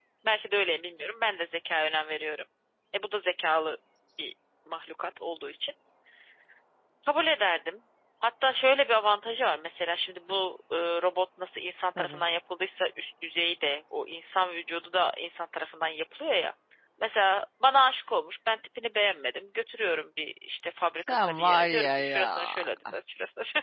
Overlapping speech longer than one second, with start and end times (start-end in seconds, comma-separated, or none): 21.1-22.6